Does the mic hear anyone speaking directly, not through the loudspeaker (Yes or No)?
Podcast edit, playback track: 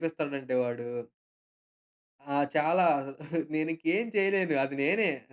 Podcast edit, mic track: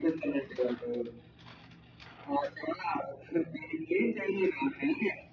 No